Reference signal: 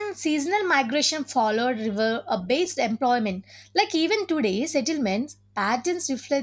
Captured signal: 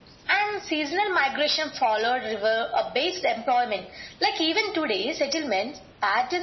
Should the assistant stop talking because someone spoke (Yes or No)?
No